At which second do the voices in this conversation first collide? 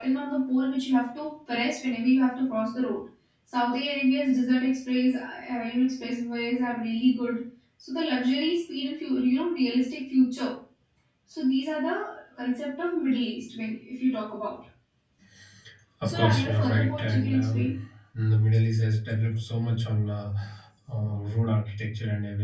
16 s

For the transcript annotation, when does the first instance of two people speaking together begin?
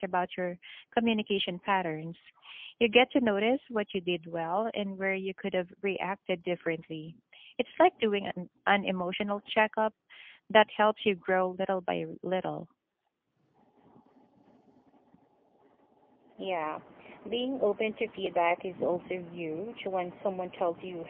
none

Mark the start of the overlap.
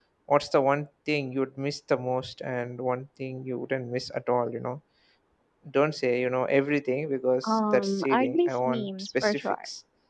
7 s

